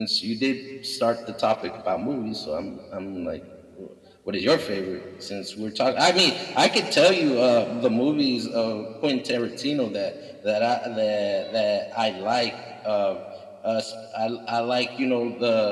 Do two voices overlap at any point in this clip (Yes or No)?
No